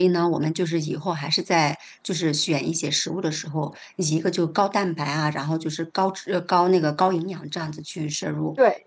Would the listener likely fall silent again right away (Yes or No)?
Yes